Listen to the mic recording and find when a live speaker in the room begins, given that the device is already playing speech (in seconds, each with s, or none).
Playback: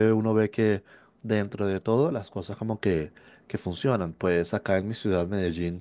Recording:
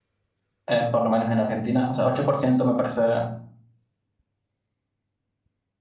0.7 s